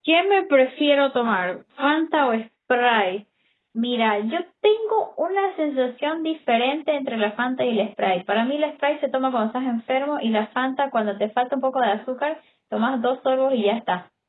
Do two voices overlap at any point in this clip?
No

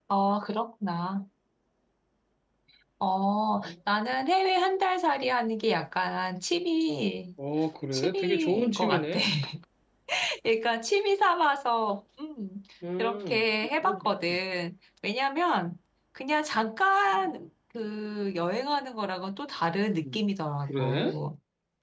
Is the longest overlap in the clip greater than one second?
Yes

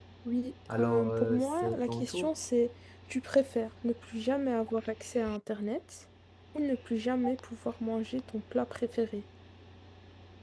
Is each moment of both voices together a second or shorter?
No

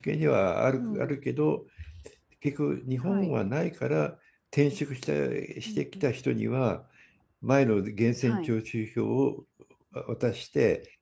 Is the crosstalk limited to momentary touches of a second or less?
Yes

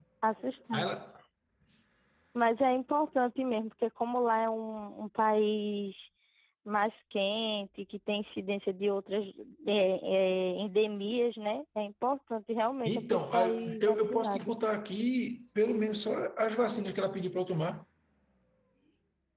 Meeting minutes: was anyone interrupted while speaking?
Yes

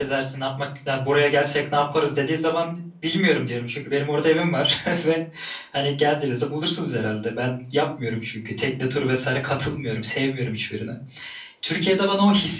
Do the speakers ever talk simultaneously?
No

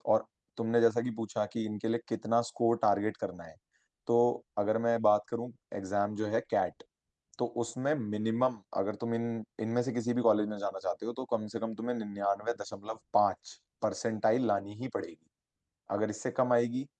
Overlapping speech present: No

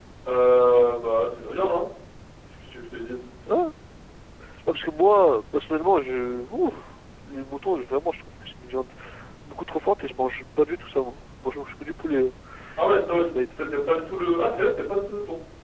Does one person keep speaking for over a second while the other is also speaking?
No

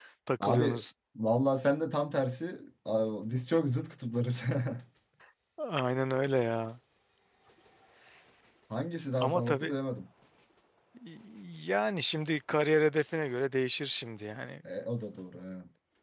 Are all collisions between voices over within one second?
Yes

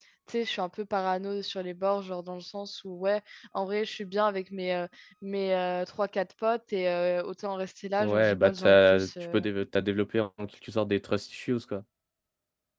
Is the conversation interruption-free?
No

